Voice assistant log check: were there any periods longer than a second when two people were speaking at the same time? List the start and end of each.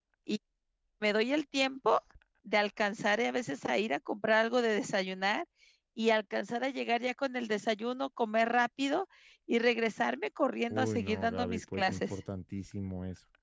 10.7-12.2

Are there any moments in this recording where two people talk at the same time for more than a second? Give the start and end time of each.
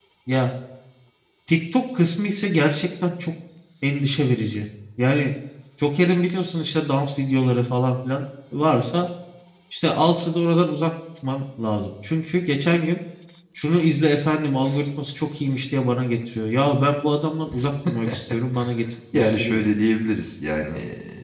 none

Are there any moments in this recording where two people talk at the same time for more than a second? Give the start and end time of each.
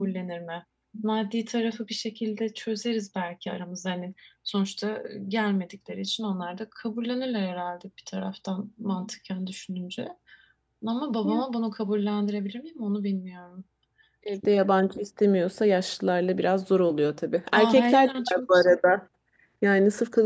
17.5-18.8

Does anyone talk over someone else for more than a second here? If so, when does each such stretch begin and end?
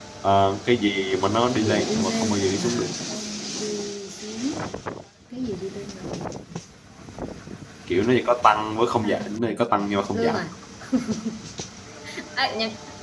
1.5-2.9, 8.8-10.4

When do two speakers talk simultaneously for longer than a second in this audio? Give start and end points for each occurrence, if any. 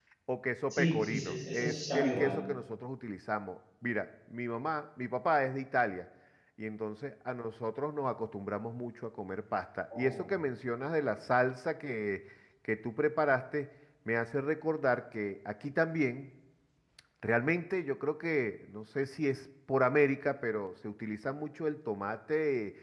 0.7-2.3

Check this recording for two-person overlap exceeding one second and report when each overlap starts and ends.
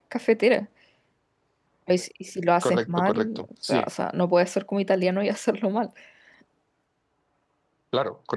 2.6-3.9

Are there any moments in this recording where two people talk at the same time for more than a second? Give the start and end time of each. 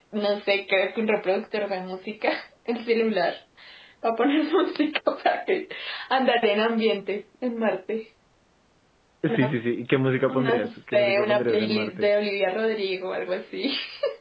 10.3-12.1

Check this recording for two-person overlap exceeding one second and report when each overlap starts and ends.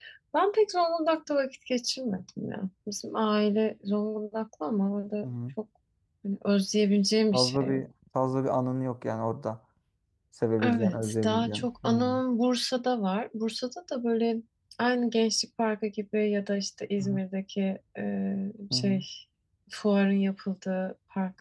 10.6-12.2

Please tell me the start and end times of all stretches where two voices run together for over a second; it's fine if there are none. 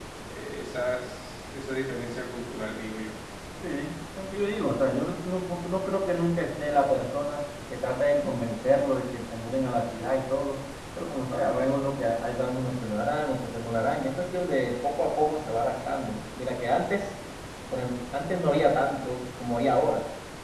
none

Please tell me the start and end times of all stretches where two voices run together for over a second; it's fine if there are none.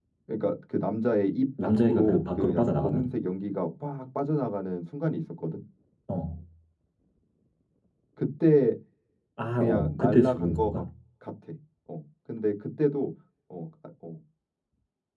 1.6-3.0, 9.5-10.8

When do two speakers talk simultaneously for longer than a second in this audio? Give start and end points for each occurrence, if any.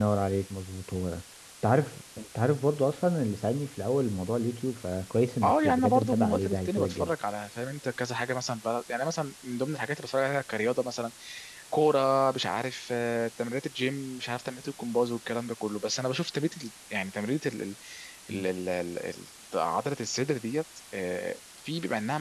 5.4-7.1

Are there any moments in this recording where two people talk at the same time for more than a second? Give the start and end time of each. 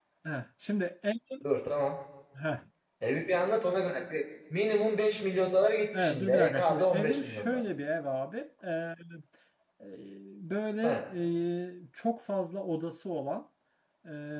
6.0-7.6

